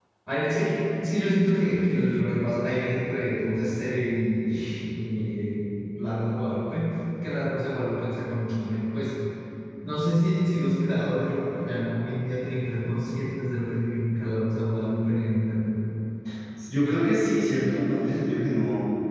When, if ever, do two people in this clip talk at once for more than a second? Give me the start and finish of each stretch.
none

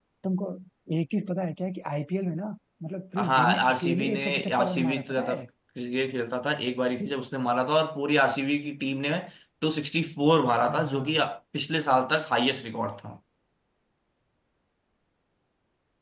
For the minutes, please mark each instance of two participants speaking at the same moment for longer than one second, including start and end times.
3.2-5.4

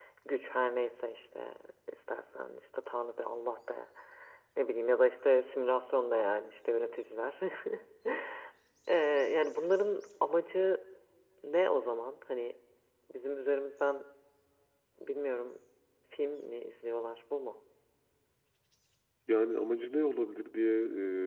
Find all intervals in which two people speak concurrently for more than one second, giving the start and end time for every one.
none

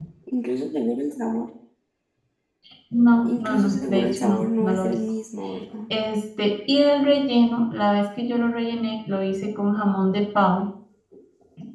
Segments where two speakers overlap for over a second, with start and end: 3.2-5.0

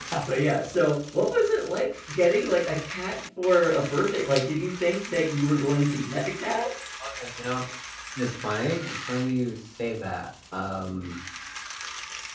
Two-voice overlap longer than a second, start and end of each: none

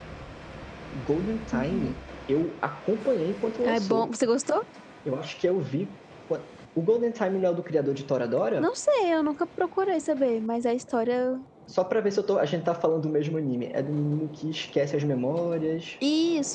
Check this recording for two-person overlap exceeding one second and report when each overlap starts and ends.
none

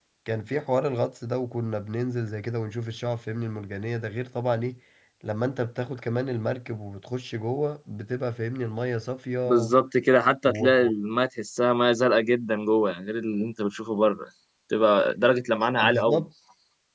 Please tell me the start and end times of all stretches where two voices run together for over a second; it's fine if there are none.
none

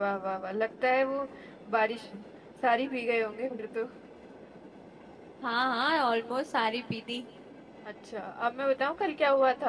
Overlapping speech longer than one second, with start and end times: none

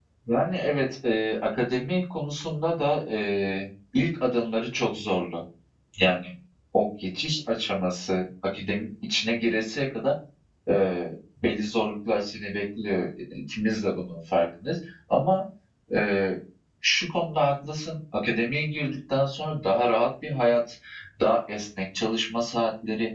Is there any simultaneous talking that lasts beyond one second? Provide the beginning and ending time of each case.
none

